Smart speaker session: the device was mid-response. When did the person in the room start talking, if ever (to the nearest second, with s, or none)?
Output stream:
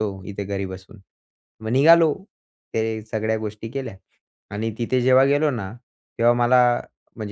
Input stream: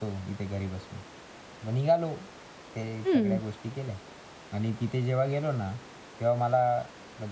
3 s